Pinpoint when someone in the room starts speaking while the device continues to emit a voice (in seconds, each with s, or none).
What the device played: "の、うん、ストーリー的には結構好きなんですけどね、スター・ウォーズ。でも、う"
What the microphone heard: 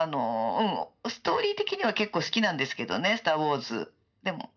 none